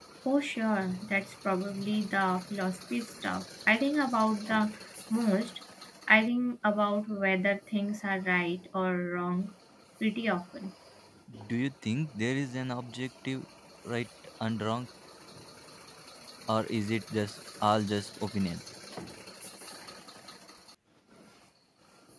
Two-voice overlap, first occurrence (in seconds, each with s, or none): none